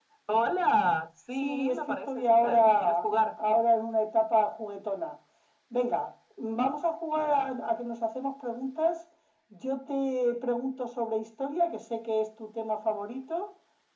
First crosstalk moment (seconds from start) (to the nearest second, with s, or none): 1 s